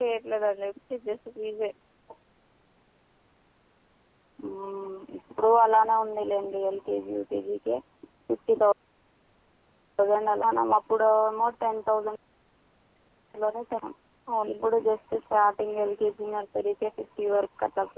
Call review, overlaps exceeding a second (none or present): none